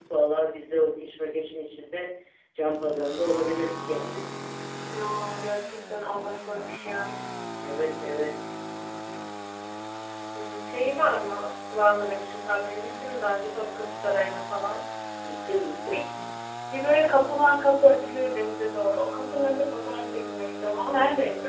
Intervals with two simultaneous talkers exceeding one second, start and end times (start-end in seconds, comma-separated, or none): none